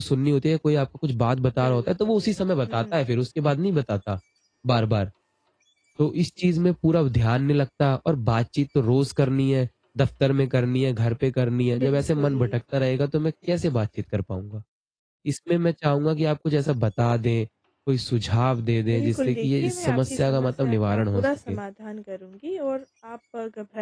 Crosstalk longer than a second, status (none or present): present